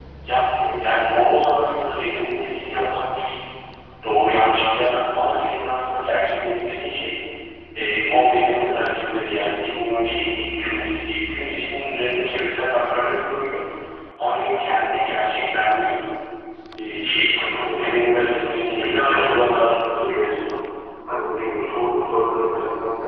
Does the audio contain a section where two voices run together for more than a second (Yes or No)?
Yes